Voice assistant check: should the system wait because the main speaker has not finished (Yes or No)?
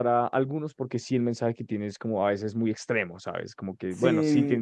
No